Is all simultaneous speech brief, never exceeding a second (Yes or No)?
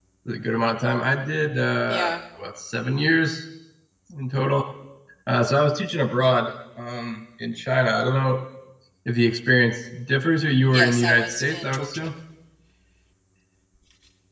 No